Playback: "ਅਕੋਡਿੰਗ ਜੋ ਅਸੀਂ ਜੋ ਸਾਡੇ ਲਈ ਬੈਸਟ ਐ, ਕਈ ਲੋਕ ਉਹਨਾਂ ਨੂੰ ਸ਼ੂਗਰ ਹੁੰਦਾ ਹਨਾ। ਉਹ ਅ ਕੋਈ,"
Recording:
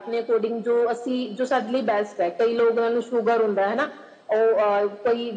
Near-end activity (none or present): none